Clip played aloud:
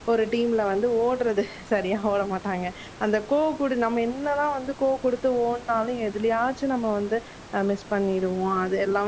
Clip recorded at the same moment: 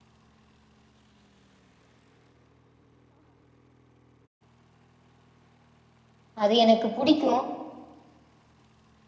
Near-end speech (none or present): present